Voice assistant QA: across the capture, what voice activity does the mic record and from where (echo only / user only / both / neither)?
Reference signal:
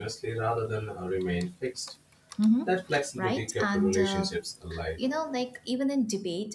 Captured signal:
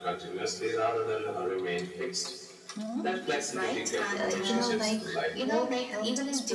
both